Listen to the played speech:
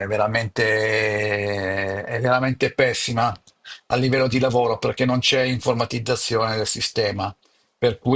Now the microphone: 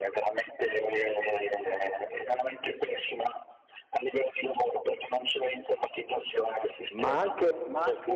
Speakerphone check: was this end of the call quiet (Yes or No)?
No